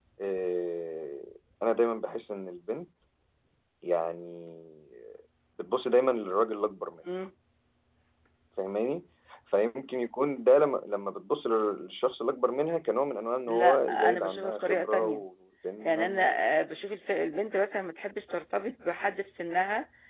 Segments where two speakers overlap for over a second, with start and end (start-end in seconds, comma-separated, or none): 13.5-15.2